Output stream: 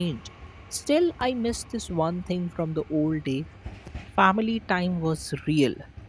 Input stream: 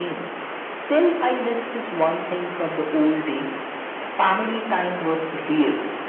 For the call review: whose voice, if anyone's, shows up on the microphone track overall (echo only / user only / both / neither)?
echo only